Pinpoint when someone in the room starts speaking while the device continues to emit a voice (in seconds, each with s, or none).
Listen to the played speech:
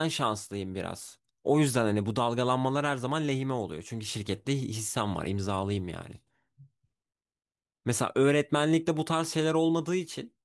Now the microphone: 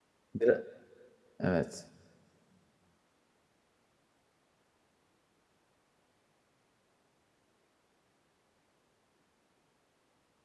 0.3 s